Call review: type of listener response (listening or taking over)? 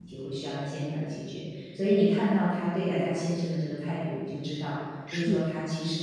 listening